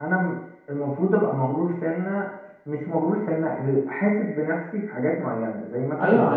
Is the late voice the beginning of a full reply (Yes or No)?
Yes